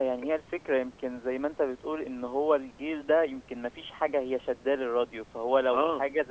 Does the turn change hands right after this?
No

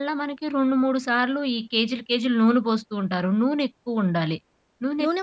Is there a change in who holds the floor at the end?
Yes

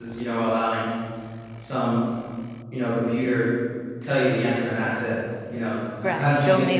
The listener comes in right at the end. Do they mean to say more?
Yes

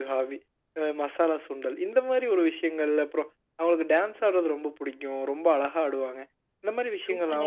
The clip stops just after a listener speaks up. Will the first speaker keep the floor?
No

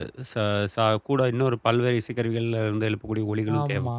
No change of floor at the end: No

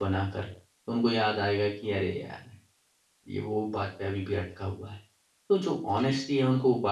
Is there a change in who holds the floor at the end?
No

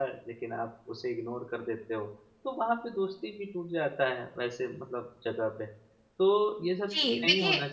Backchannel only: No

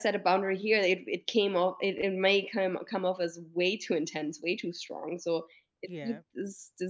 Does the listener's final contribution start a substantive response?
No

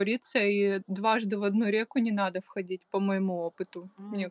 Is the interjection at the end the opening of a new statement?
Yes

